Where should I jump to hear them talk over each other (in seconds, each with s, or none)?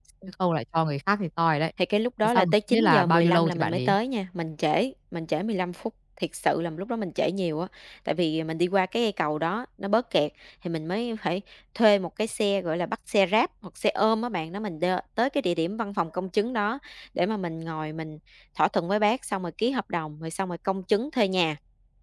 2.2 s